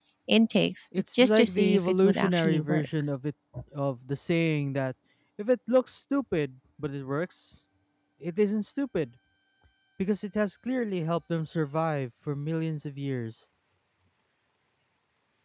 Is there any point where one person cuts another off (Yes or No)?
Yes